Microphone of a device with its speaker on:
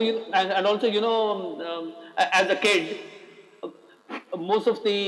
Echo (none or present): present